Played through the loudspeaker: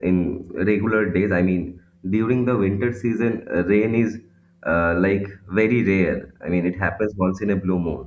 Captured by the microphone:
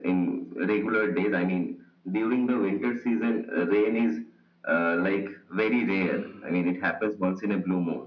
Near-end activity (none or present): present